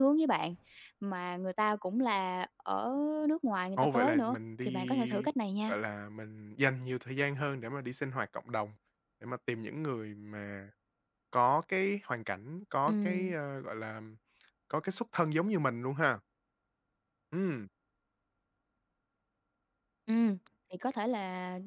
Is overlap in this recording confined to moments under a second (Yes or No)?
No